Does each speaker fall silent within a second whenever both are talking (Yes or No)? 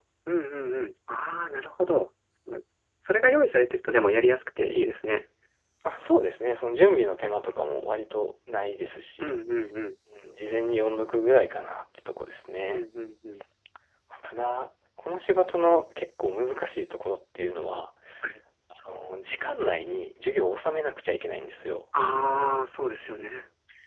Yes